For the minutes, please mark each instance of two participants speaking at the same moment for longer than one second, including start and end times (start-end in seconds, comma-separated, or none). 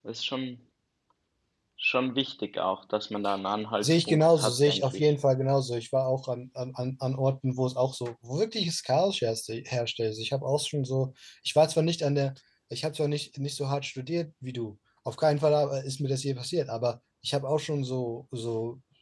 3.8-5.1